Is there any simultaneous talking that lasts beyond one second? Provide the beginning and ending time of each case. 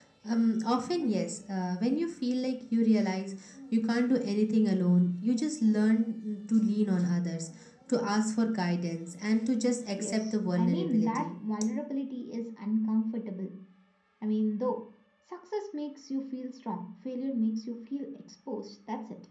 10.0-11.4

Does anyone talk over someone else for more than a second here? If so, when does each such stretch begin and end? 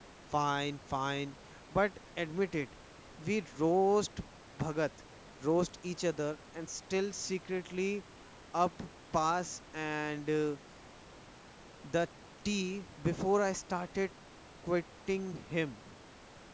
none

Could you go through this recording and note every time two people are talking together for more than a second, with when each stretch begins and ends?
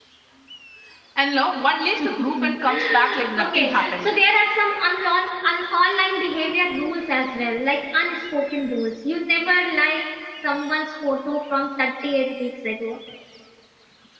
2.0-4.1

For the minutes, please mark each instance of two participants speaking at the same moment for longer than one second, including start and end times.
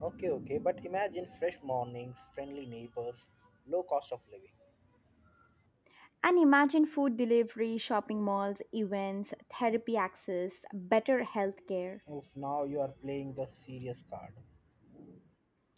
none

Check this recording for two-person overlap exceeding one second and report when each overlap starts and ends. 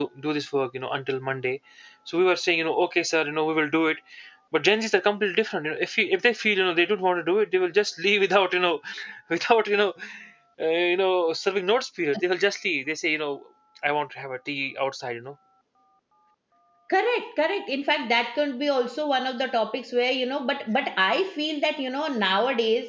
none

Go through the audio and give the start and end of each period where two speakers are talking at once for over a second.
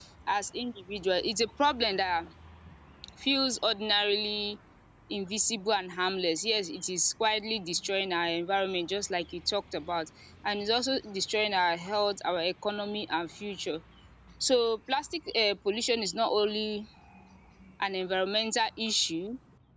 none

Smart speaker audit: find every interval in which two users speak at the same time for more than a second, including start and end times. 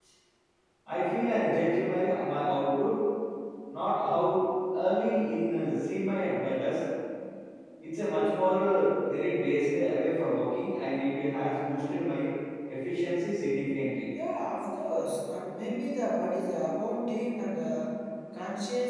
none

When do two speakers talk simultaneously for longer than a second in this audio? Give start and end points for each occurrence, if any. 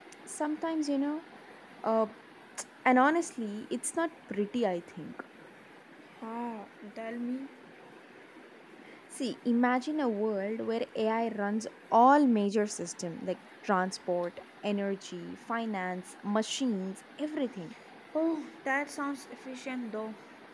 none

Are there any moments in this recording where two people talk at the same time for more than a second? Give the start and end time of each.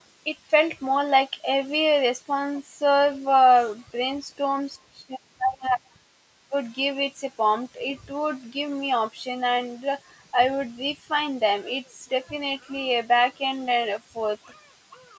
none

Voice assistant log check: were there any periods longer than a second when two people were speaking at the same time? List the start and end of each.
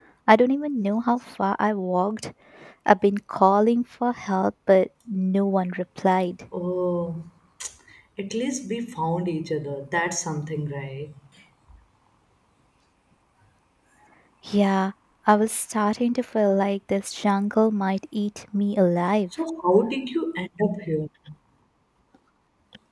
none

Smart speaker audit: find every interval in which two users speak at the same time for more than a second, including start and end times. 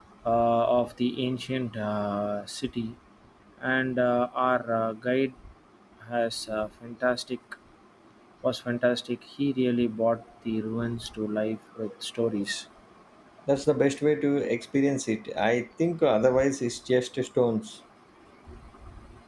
none

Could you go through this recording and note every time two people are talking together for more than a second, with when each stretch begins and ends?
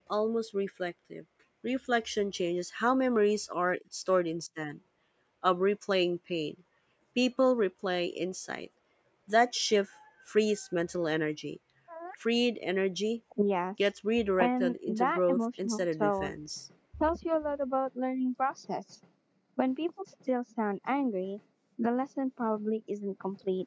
14.4-16.3

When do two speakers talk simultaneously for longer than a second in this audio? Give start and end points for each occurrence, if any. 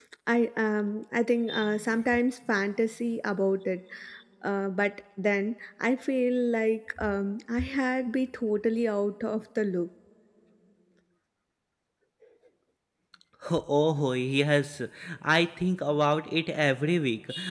none

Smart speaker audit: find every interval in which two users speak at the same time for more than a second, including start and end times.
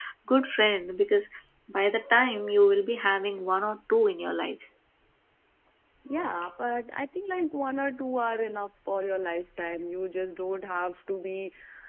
none

